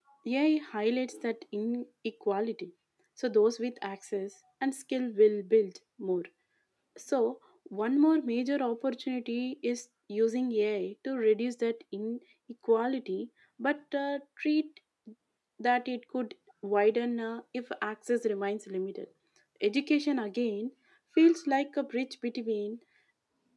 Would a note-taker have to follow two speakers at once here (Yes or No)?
No